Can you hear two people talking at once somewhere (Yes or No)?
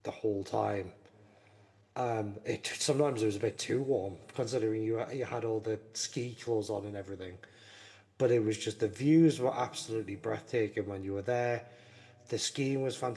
No